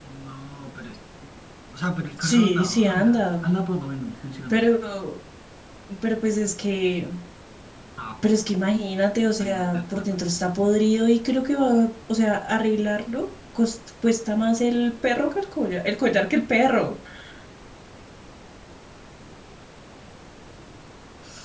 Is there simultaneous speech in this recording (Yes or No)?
Yes